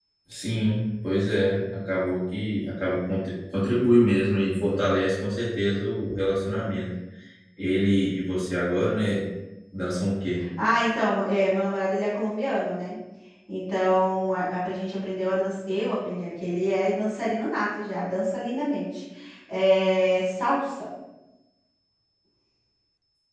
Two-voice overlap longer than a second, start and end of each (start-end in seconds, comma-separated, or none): none